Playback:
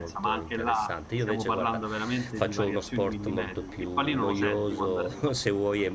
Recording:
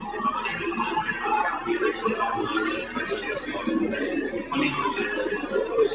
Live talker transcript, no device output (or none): none